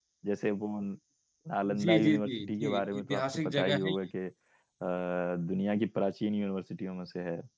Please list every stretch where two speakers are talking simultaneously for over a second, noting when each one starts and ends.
1.8-3.9

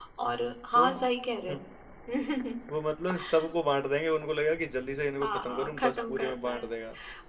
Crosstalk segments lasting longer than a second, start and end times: 5.2-6.7

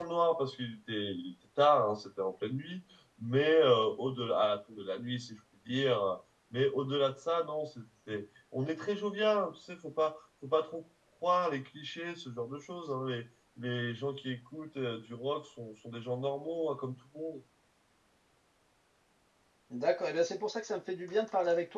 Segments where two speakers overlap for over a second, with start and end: none

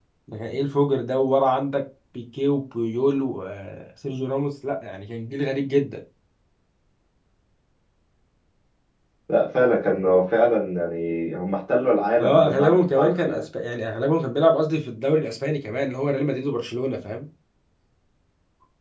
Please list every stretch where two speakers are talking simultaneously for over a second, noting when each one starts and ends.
12.2-13.4

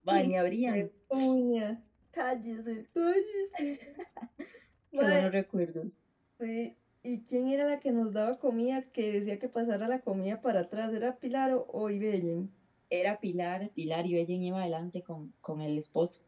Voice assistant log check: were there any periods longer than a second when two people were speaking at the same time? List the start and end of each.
none

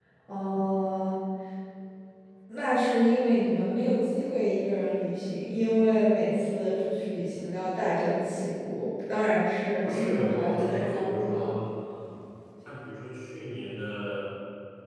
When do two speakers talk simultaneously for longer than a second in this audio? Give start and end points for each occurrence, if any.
9.8-11.6

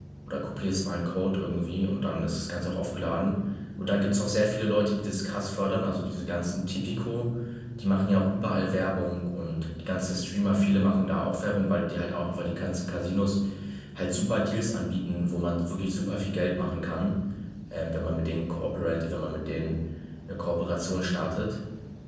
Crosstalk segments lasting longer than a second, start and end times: none

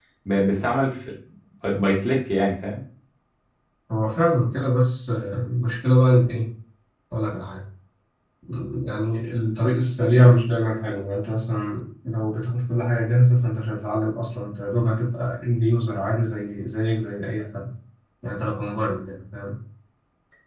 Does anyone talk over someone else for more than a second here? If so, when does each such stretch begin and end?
none

